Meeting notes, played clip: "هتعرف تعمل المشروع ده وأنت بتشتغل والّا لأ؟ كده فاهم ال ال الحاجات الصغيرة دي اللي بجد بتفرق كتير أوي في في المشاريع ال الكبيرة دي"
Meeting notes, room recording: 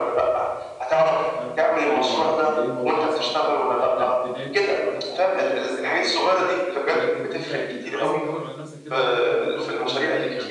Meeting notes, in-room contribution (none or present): present